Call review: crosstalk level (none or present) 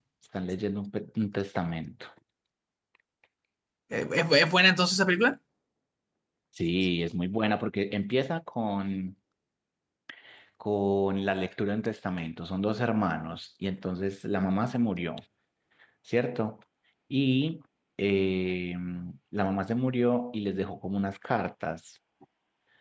none